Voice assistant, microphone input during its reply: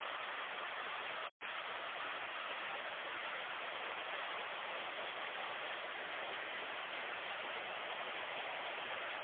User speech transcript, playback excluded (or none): none